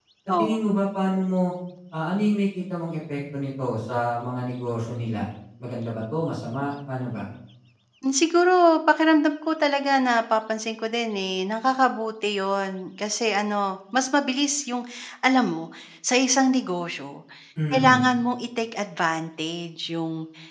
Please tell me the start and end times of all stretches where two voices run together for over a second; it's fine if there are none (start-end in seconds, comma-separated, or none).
none